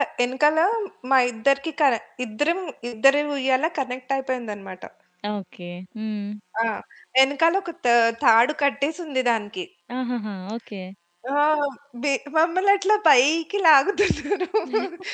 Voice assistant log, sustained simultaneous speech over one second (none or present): none